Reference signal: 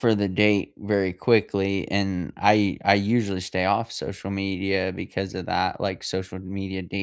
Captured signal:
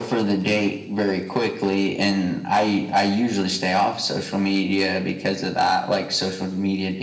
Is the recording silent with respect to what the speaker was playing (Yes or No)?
No